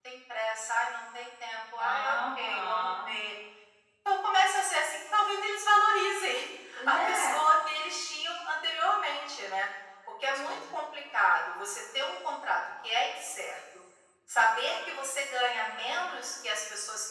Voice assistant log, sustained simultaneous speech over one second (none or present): present